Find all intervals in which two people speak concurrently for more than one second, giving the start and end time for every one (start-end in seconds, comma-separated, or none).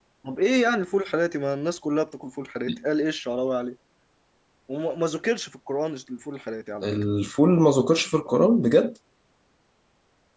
none